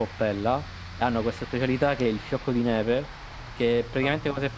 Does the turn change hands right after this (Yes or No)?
No